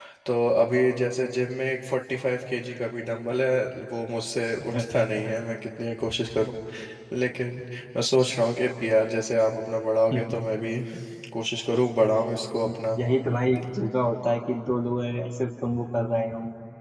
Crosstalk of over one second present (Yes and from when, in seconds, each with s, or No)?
No